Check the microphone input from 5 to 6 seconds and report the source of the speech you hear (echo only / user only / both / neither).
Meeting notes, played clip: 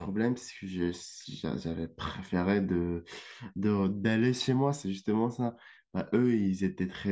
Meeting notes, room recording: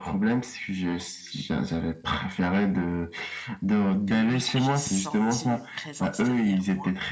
both